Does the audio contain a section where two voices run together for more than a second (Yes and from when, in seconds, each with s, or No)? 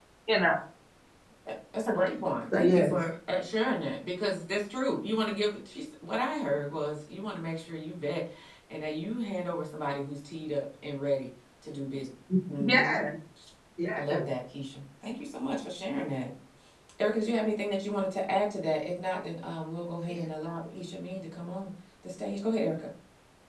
No